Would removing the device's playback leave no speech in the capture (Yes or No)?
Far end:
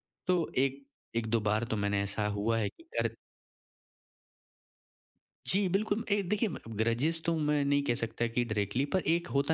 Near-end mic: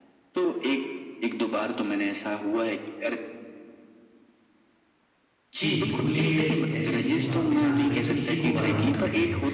No